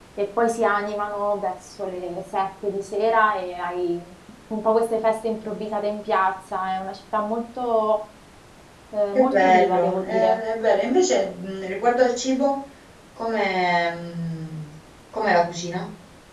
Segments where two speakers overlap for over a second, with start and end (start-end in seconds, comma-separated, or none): 9.2-10.4